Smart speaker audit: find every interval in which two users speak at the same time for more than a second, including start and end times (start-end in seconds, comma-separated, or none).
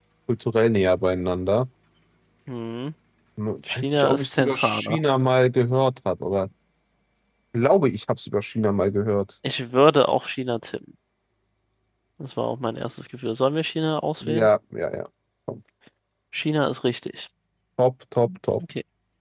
3.7-5.0